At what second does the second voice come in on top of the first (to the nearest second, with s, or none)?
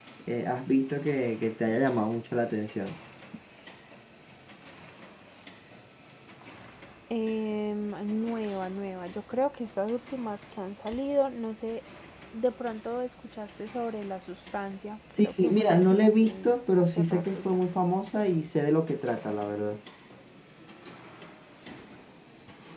15 s